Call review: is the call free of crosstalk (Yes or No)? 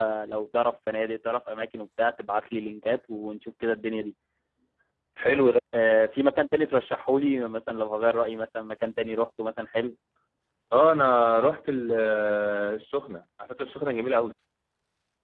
Yes